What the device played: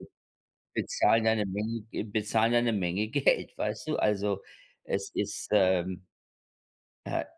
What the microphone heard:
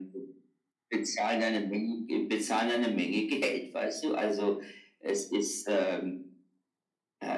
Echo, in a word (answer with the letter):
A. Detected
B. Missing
A